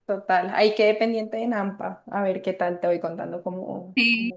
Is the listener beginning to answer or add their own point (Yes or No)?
Yes